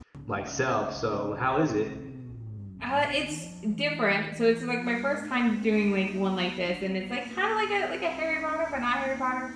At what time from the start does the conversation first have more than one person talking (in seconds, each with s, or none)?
none